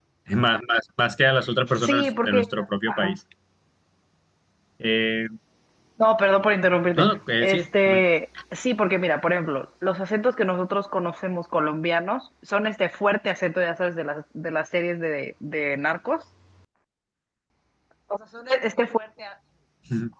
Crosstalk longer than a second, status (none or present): present